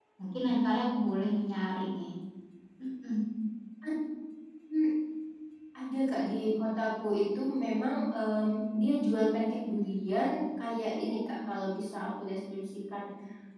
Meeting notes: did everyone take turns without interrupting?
Yes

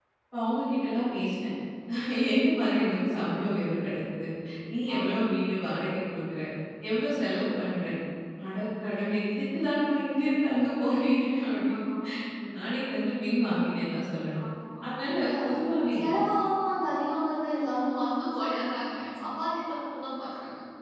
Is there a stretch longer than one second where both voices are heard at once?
No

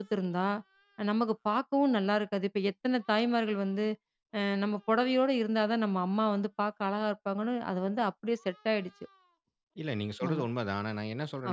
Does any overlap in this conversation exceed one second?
No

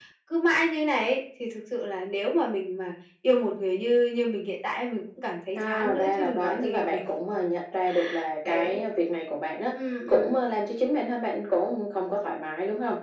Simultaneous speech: Yes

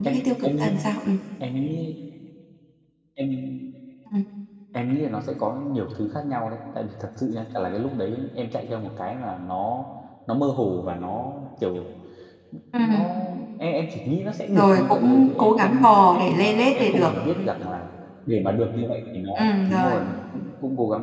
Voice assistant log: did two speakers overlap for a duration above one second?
Yes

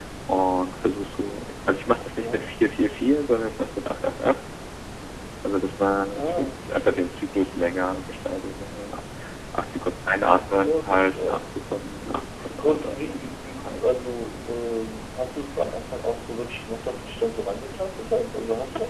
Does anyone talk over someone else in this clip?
Yes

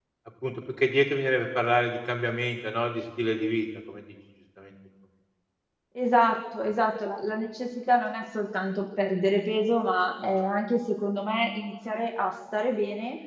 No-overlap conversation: Yes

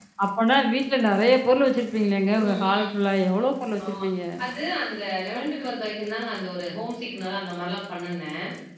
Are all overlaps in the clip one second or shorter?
Yes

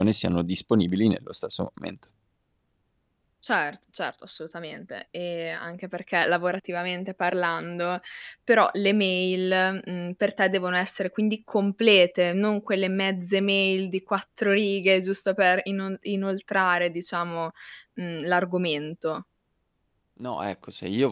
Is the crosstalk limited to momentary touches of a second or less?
Yes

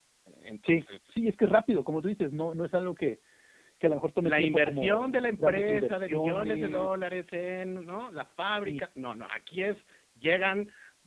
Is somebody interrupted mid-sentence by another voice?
Yes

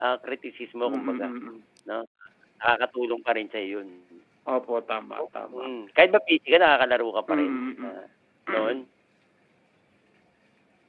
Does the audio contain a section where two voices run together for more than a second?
No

